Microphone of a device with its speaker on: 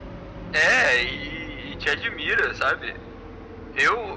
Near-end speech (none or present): none